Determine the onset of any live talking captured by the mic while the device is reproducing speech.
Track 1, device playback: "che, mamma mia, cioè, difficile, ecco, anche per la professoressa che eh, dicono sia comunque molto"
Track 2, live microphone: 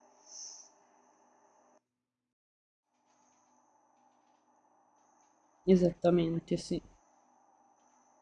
6 s

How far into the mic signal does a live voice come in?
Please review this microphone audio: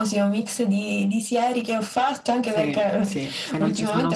2 s

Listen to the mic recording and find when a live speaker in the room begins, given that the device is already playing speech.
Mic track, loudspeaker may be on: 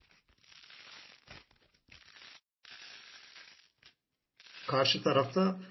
5 s

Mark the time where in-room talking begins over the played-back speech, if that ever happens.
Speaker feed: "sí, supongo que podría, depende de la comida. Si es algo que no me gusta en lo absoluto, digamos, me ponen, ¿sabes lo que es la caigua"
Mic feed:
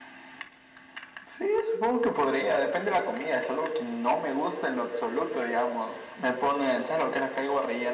none

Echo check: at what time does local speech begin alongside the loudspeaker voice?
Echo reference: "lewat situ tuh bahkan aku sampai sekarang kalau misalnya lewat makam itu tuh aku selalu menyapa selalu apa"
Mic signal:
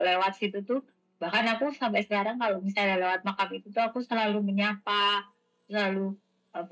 none

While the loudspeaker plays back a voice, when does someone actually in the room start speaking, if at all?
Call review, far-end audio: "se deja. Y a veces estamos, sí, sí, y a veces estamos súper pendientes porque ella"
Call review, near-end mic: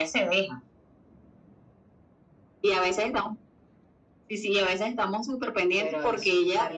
6 s

